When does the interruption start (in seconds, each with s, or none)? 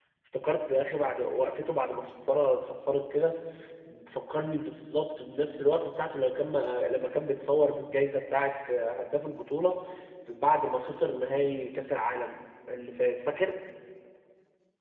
none